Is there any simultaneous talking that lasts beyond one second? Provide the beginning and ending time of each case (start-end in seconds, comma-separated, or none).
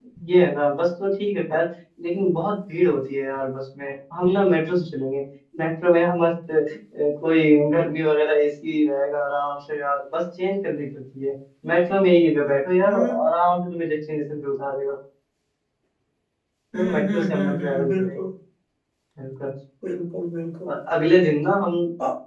16.7-18.2